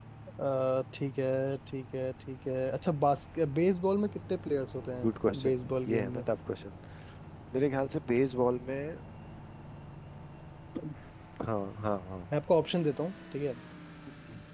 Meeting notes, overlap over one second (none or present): present